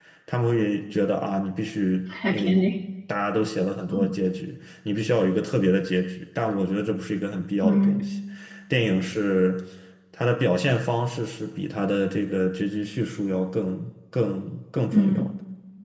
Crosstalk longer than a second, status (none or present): none